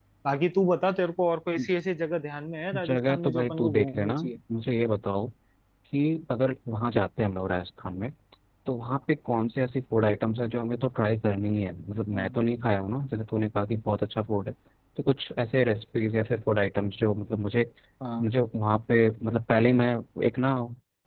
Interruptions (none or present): present